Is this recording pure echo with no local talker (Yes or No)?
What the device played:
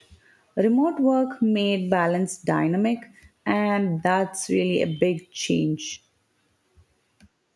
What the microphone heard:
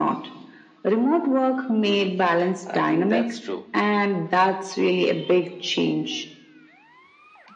No